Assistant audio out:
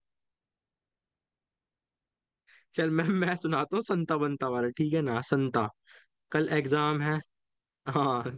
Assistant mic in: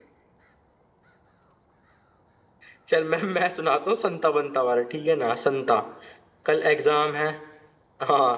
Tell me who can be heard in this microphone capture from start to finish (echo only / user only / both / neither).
echo only